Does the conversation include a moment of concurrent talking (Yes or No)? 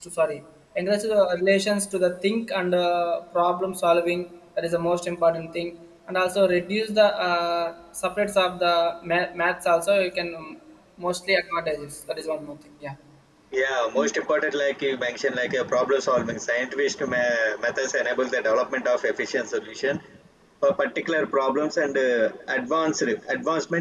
No